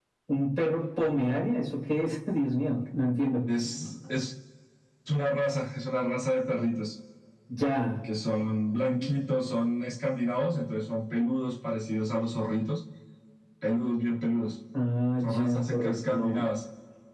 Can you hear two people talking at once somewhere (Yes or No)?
Yes